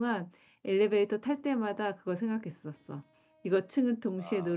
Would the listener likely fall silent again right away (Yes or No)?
Yes